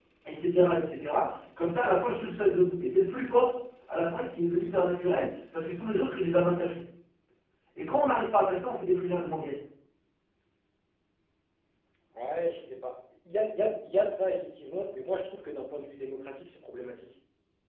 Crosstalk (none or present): none